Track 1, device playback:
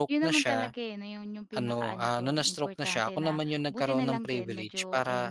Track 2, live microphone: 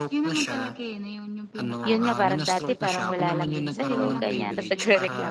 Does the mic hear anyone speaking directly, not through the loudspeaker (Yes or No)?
Yes